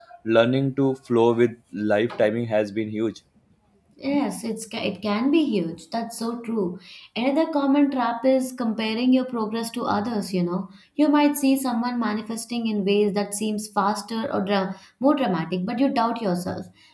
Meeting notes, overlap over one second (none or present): none